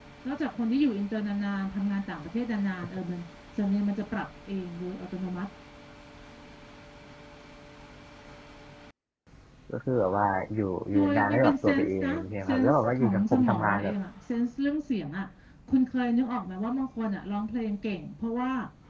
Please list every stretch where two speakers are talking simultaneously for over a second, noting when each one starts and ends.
10.9-13.9

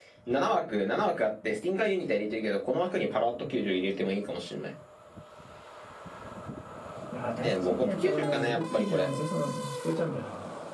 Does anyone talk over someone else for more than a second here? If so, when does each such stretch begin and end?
7.4-9.1

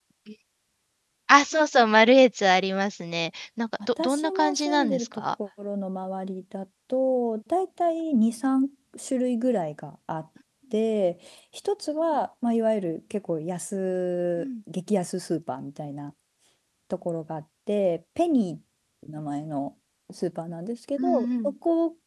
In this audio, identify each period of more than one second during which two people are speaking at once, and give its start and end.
4.0-5.4

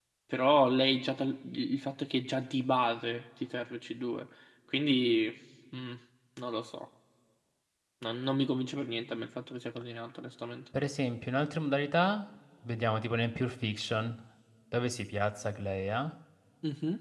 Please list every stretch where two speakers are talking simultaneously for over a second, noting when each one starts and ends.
none

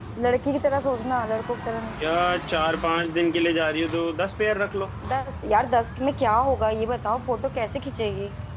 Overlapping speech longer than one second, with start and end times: none

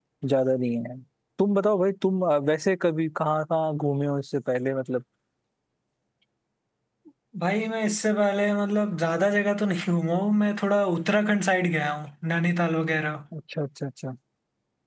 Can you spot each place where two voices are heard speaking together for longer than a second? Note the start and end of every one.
none

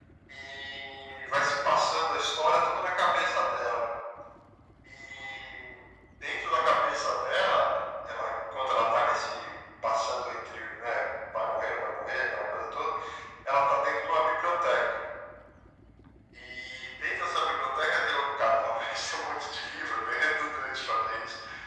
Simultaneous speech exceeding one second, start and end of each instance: none

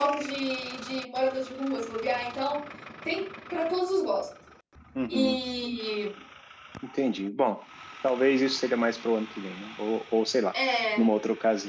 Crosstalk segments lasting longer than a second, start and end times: none

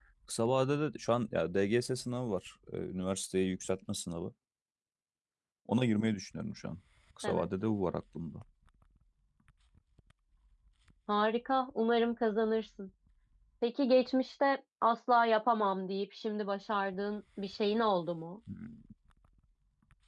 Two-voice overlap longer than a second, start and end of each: none

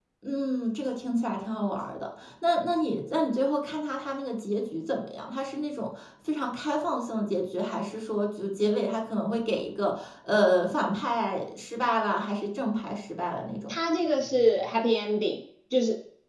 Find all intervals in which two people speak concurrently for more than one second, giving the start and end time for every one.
none

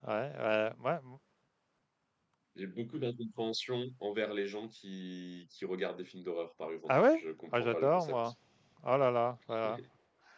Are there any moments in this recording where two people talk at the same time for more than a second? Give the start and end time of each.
6.9-8.3

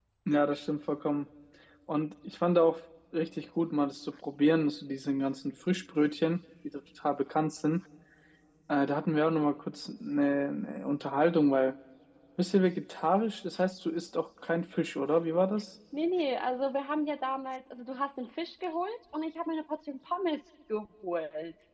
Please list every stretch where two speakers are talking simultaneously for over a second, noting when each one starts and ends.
none

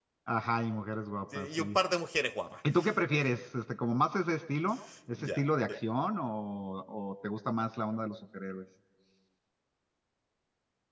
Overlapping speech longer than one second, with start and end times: none

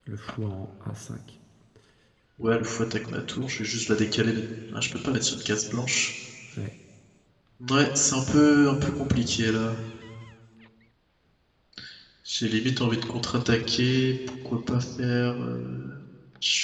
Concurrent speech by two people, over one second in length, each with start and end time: none

